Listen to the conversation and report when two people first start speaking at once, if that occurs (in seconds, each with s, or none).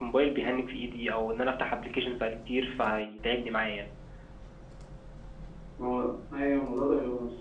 none